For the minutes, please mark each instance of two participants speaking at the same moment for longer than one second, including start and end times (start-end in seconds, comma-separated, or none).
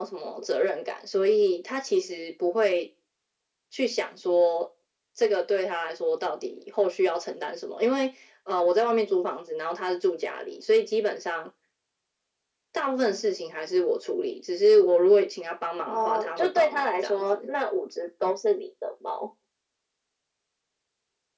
15.8-17.5